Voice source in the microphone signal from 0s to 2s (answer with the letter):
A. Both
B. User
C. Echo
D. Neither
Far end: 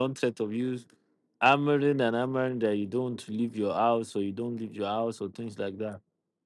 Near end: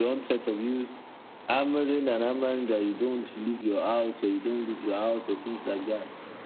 C